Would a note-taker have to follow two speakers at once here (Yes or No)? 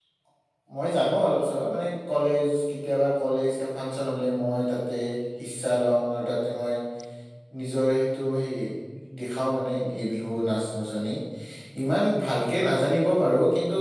No